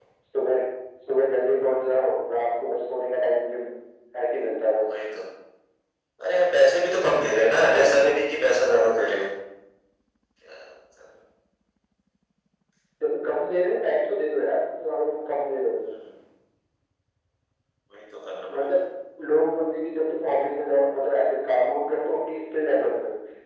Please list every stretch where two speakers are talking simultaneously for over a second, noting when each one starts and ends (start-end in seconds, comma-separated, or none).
none